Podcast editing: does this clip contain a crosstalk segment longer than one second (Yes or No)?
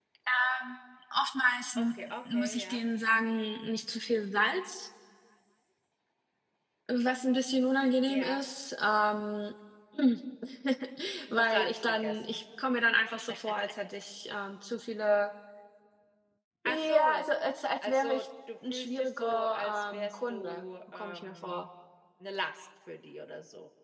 Yes